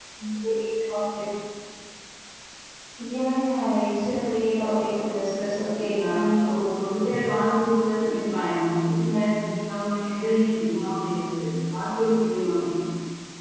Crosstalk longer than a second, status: present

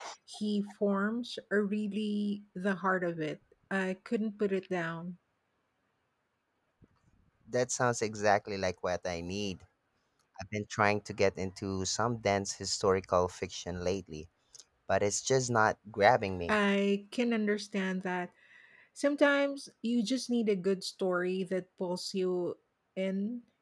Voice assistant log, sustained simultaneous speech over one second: none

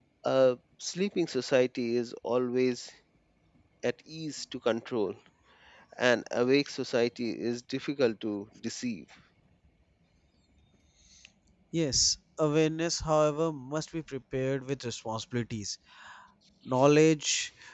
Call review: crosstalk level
none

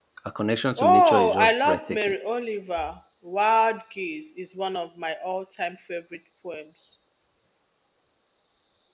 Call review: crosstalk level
present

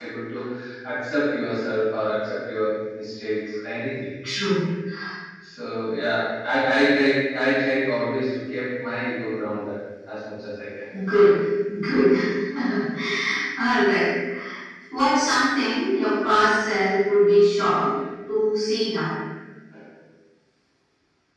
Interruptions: none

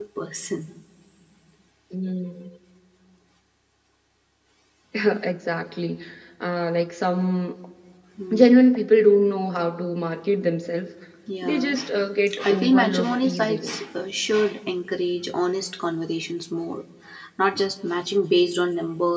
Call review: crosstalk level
present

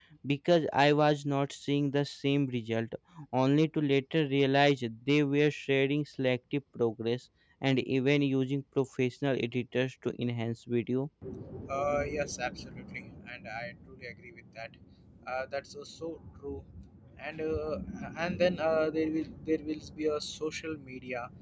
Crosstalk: none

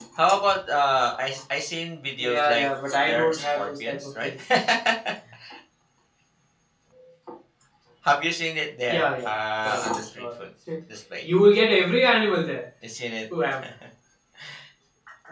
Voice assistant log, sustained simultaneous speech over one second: present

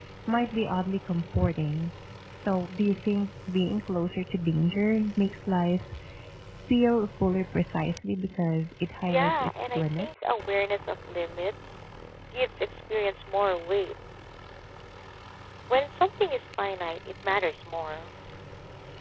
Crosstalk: present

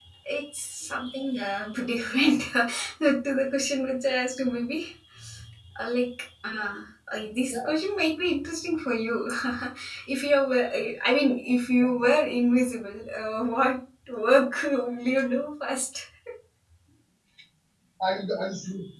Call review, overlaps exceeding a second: none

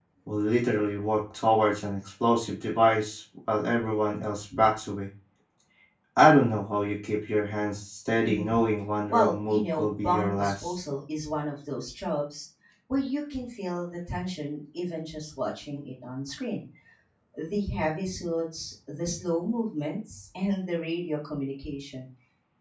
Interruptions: present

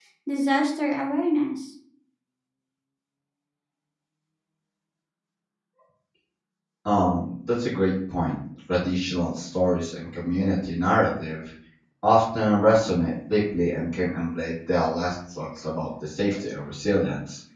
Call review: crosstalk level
none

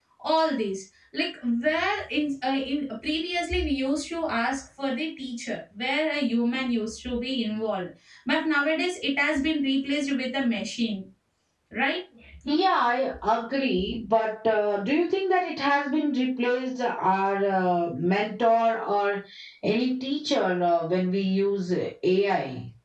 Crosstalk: none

